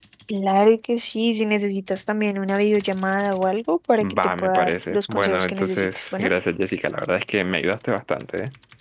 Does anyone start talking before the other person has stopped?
Yes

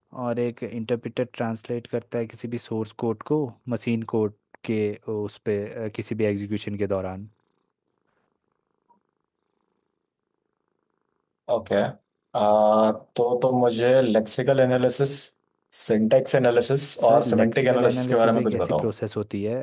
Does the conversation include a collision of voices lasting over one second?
Yes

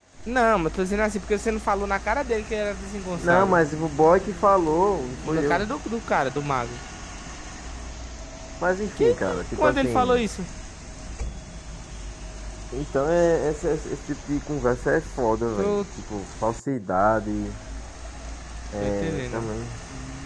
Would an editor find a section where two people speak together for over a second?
Yes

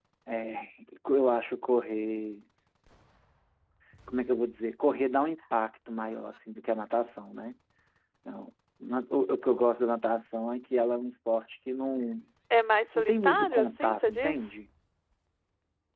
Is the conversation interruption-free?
No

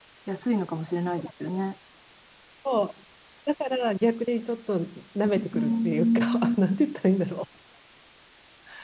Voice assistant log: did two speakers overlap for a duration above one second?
Yes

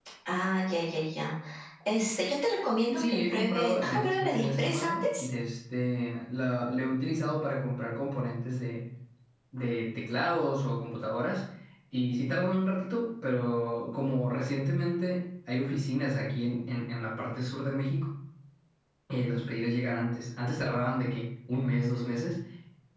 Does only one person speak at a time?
No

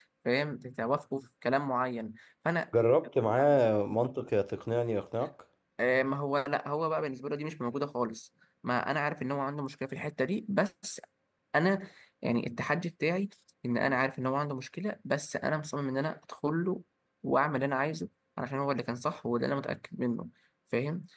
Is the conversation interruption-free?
Yes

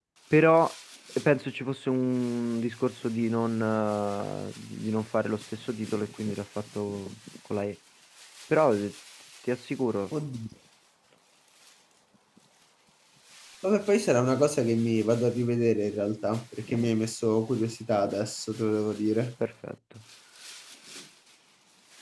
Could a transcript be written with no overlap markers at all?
Yes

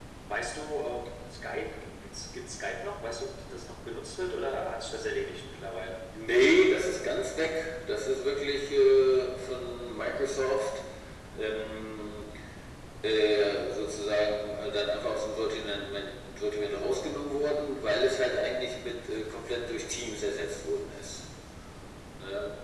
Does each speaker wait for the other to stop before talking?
Yes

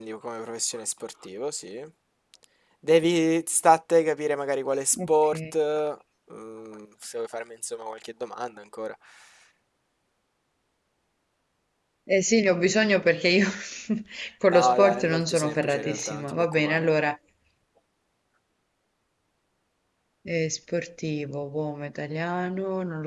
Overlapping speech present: Yes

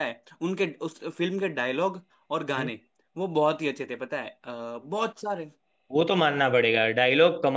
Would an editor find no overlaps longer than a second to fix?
Yes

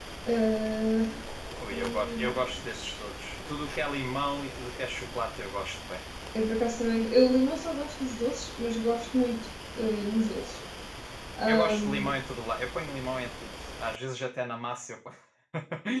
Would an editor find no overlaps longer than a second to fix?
No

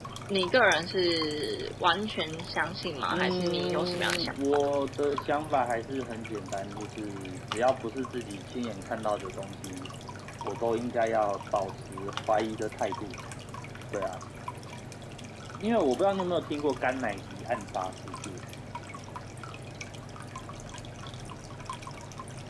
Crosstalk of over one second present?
Yes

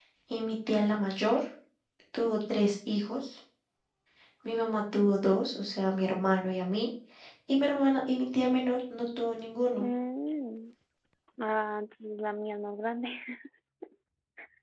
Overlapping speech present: No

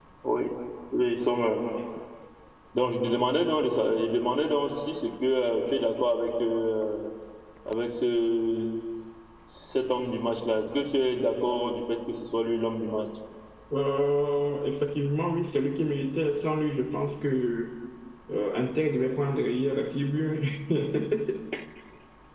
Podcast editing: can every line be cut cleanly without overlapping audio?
Yes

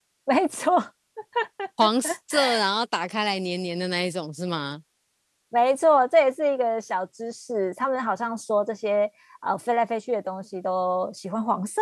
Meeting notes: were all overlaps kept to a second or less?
Yes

